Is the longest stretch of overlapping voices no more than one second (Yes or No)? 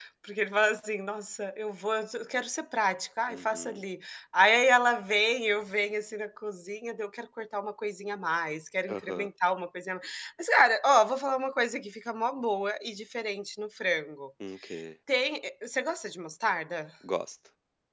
Yes